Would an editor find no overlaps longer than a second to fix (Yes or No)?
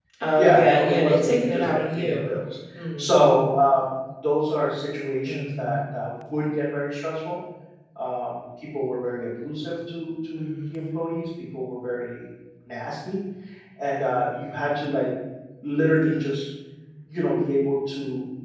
No